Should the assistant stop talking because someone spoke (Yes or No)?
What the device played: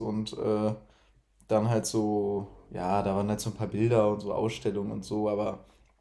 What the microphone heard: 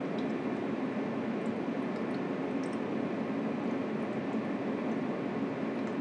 No